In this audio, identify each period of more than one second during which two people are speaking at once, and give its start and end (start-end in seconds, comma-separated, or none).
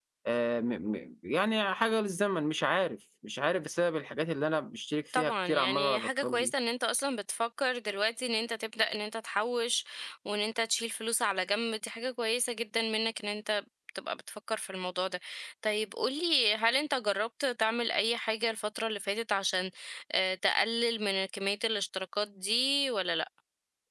5.2-6.5